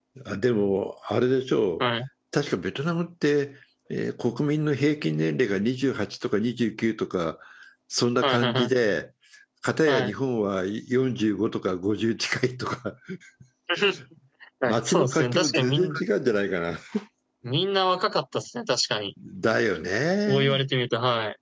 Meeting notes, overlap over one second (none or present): present